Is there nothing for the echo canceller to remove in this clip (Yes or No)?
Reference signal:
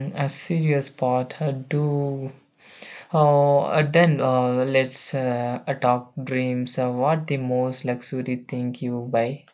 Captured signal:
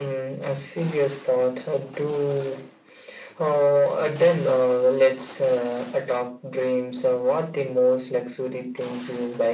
No